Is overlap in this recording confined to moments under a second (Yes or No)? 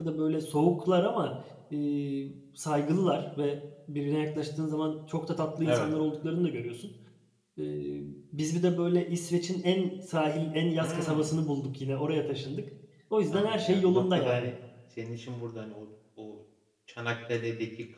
No